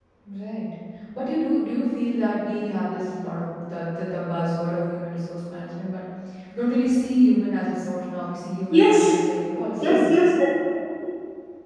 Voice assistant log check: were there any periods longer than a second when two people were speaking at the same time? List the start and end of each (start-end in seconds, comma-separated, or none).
none